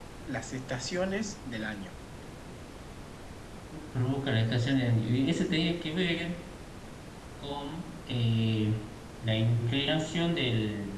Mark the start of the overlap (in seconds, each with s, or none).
none